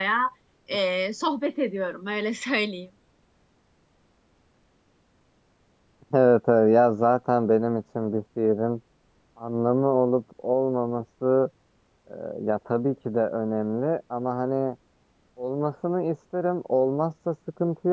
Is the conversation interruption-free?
Yes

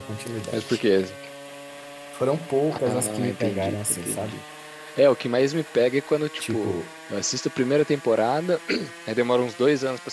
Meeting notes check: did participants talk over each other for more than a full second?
Yes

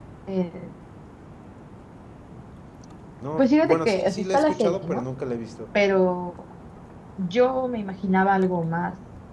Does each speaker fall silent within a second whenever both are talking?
No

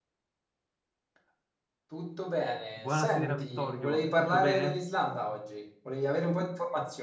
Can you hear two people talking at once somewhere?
Yes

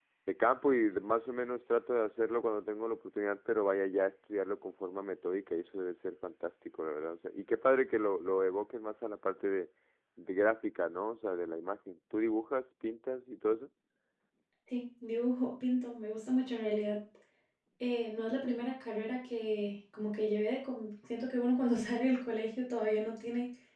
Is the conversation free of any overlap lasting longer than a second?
Yes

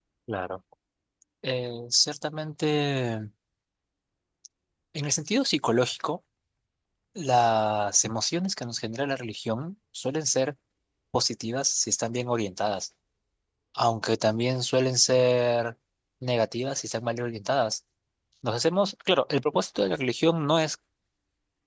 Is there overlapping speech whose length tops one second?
No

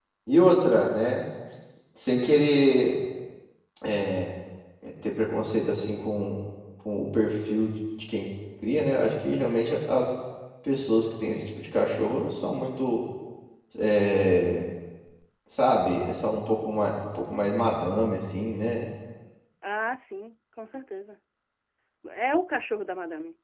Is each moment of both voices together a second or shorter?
Yes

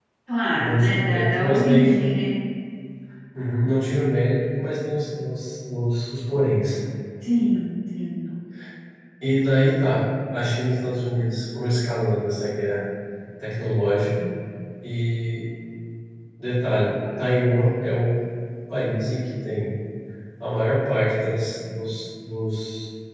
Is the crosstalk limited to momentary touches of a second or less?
No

